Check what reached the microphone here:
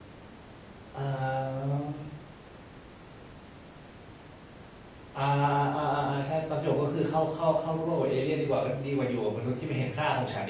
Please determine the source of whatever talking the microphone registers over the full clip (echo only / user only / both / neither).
user only